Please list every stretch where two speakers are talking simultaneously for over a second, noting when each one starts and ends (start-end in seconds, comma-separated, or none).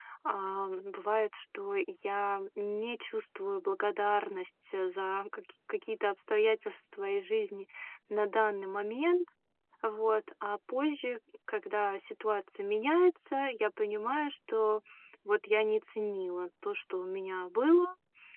none